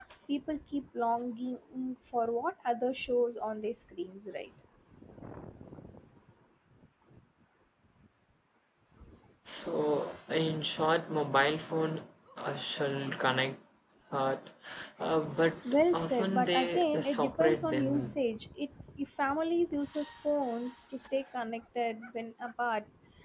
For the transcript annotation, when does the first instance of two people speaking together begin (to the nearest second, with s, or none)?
16 s